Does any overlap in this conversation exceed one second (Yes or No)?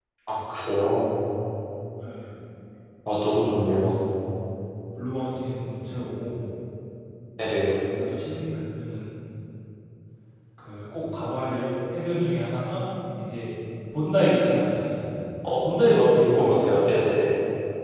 Yes